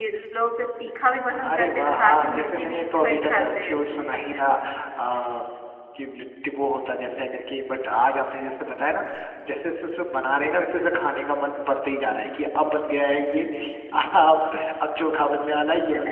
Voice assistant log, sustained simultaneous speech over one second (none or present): present